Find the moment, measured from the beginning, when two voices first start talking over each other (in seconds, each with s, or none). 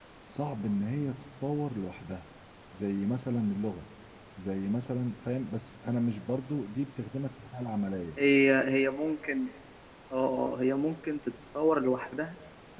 none